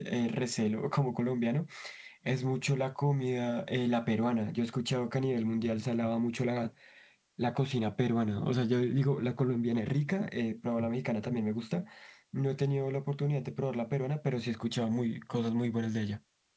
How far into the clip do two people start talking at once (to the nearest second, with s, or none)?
none